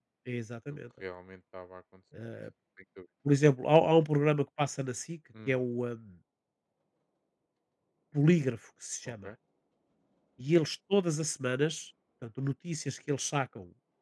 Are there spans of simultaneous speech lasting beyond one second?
No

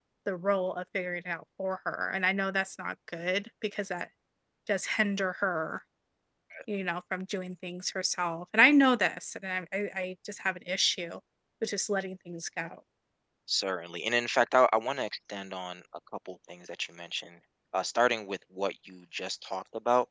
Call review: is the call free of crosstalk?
Yes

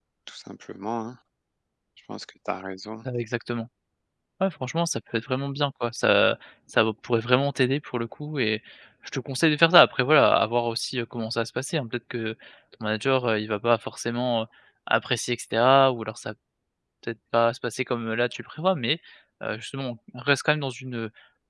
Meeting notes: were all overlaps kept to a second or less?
Yes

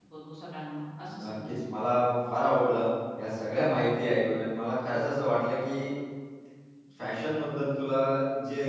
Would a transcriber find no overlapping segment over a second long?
Yes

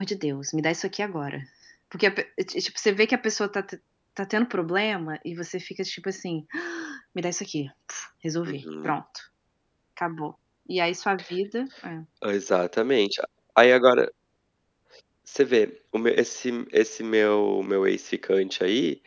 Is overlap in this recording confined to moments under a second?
Yes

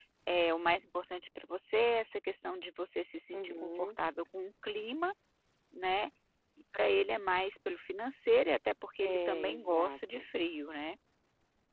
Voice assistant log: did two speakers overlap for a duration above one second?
Yes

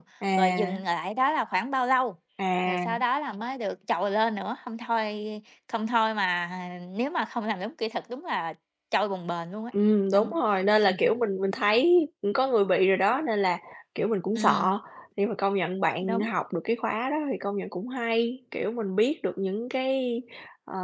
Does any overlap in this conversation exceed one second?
No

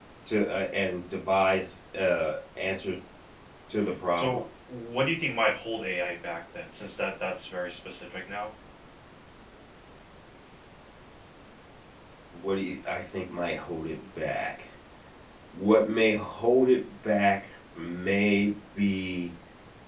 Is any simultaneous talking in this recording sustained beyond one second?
No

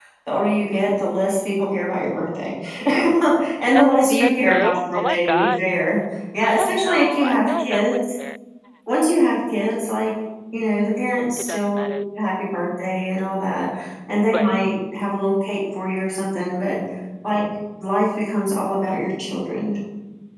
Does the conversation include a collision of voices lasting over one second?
Yes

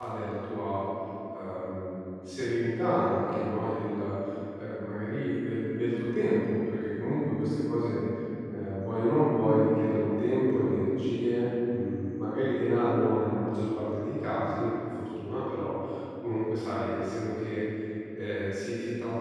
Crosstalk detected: No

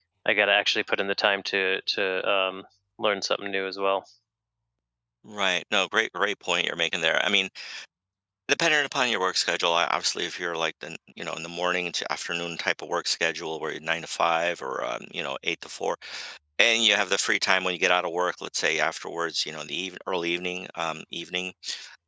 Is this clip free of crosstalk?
Yes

